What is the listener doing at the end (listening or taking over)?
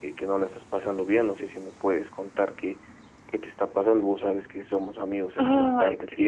listening